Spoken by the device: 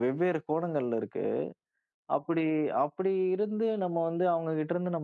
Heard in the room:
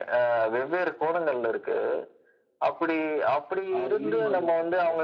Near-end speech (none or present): present